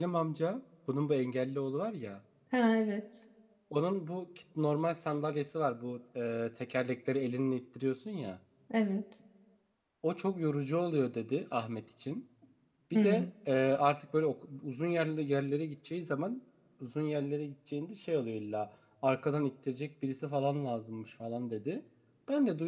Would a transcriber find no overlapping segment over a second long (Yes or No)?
Yes